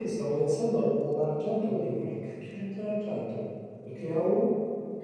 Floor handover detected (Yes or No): No